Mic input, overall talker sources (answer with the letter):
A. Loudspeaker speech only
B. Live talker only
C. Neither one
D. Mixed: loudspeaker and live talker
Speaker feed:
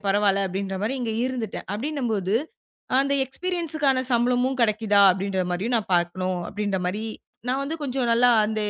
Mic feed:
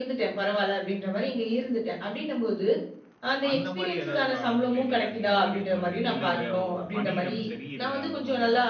D